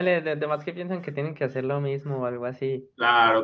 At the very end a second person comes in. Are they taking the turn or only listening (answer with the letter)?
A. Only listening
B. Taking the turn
B